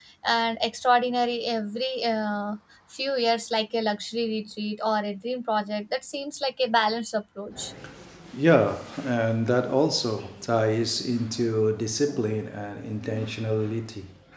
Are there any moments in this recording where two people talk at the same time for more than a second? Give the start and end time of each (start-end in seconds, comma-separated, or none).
none